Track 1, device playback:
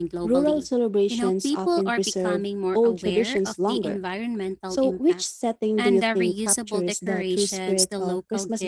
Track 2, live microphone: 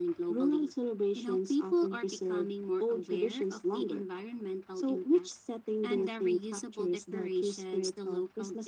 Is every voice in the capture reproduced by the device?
Yes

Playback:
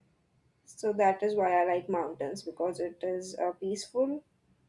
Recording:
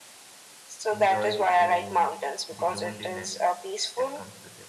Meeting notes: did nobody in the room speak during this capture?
No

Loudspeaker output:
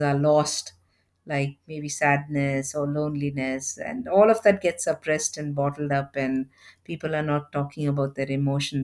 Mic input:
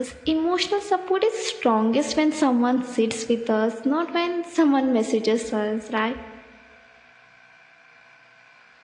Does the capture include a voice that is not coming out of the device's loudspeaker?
Yes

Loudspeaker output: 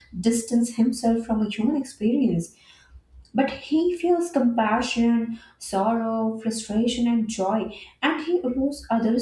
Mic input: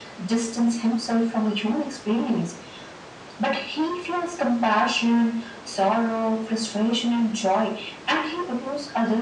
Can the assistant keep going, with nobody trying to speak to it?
Yes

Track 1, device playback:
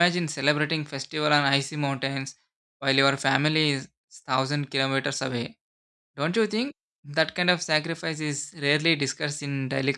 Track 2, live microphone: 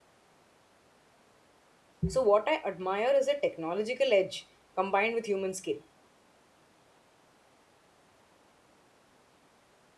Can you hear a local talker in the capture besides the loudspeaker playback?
Yes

